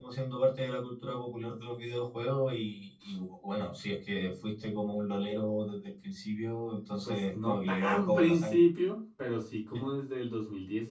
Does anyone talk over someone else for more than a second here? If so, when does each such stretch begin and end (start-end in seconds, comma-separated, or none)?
7.0-8.6